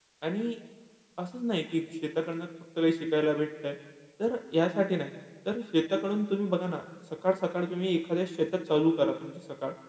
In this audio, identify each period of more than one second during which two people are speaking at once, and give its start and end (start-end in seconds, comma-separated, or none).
none